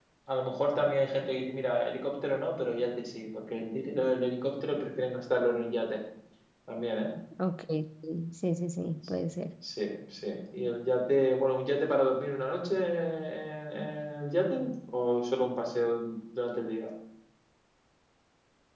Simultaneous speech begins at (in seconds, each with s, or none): none